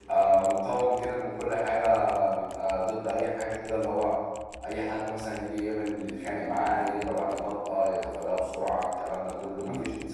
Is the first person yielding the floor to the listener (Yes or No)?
No